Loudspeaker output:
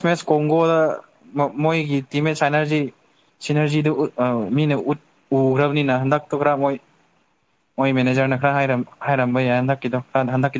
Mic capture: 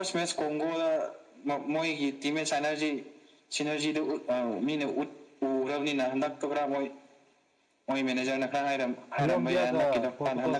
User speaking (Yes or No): Yes